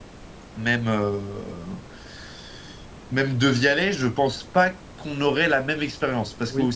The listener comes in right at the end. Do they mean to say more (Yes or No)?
No